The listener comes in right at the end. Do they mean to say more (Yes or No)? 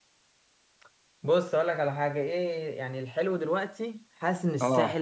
No